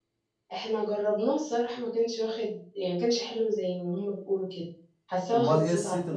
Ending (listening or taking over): taking over